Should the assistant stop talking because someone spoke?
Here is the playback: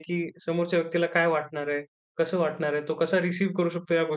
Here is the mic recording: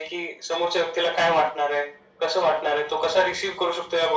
No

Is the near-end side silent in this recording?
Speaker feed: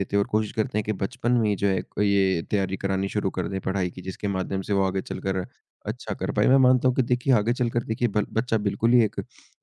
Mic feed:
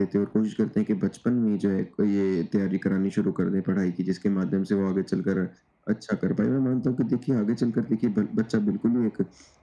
Yes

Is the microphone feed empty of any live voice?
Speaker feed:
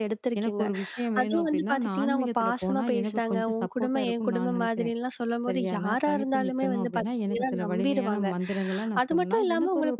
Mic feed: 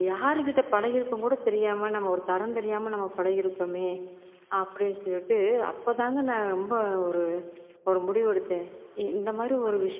No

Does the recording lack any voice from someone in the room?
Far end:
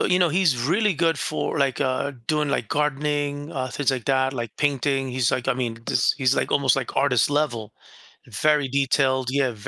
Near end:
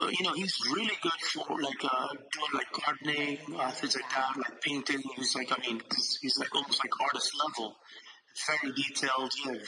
No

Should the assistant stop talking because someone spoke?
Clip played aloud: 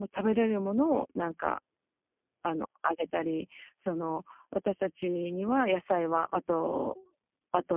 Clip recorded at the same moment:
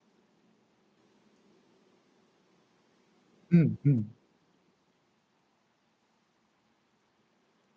Yes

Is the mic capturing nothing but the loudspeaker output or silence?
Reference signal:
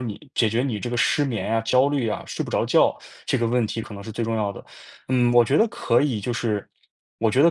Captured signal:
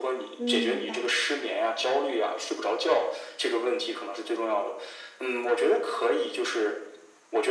No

